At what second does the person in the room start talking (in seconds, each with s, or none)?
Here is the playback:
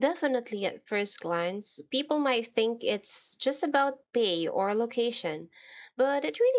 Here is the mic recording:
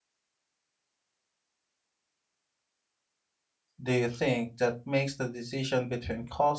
3.8 s